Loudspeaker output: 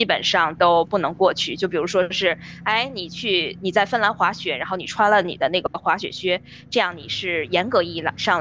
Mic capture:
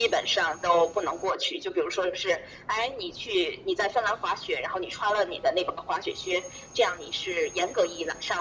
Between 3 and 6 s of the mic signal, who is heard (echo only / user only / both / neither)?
echo only